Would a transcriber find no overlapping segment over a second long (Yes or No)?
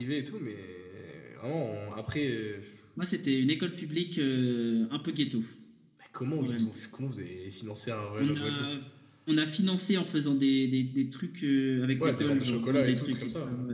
No